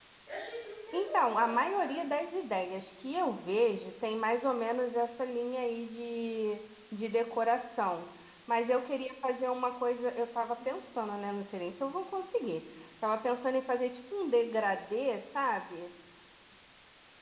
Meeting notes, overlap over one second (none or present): present